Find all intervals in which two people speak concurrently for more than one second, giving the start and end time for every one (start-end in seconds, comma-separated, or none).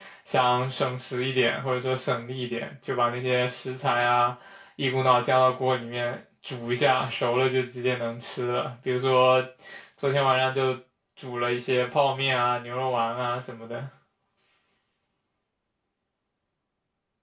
none